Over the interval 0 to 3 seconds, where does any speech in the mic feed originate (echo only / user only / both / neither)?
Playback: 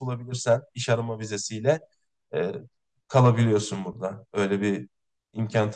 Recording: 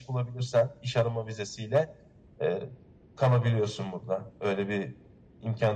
echo only